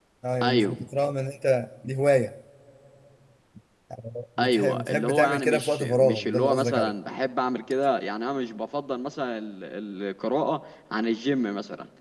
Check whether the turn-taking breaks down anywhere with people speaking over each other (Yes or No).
Yes